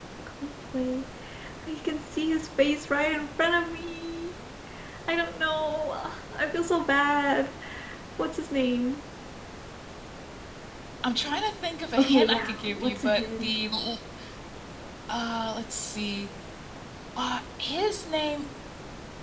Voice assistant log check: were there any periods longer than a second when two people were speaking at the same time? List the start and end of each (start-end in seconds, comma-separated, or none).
12.0-13.6